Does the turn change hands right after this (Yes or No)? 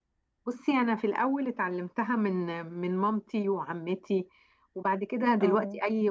No